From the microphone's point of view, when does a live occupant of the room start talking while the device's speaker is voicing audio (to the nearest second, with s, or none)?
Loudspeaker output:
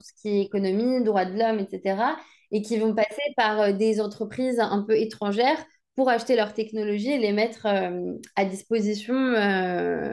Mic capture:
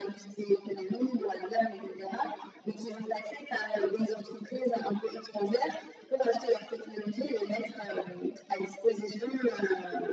none